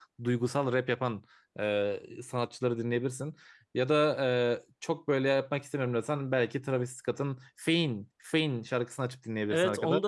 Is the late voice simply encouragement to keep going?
No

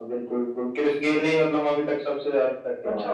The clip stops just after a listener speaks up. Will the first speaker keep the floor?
No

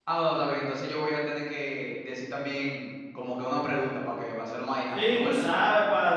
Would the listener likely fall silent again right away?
No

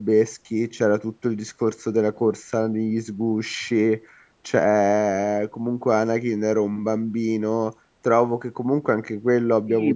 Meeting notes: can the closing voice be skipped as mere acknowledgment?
No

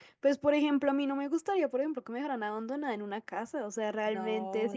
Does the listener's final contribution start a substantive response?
No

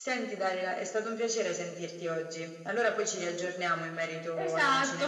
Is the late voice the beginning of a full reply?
Yes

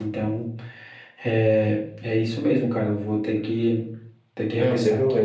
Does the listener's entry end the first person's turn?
Yes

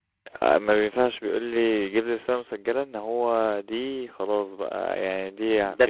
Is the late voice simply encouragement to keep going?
No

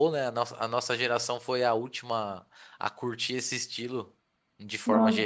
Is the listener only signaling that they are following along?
No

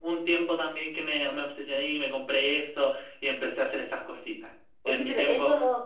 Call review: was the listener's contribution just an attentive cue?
No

